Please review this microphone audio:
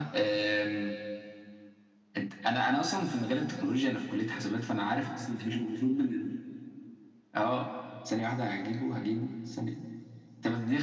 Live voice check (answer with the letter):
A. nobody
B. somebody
A